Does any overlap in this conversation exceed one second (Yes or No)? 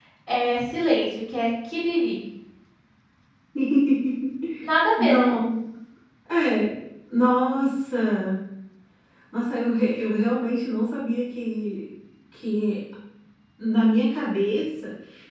No